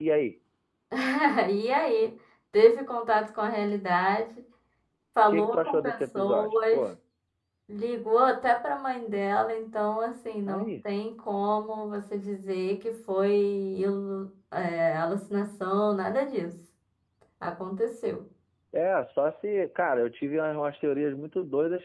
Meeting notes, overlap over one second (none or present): present